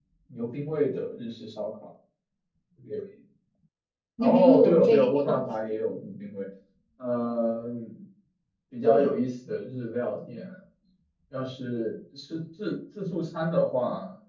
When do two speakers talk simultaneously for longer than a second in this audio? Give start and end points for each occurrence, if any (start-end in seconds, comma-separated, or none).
4.2-5.4